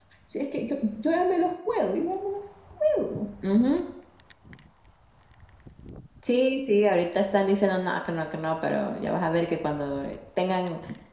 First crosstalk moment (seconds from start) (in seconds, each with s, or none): none